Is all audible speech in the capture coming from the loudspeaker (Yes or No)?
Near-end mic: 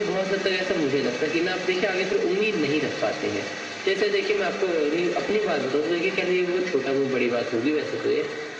Yes